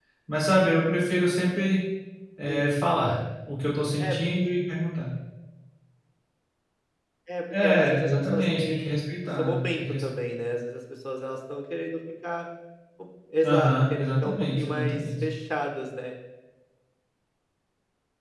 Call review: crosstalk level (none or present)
present